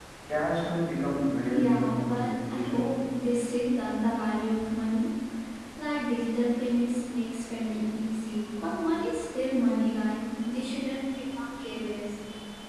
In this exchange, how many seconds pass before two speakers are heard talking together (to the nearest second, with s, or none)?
2 s